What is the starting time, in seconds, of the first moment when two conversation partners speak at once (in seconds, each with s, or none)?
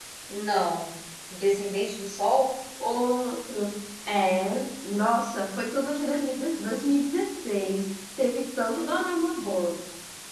none